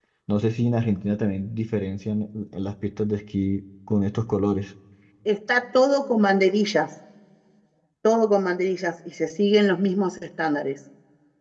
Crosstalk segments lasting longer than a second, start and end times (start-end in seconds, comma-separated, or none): none